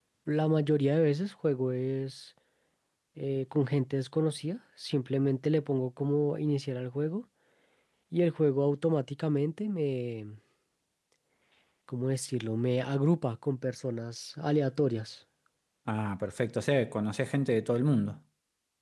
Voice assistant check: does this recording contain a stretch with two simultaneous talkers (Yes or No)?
No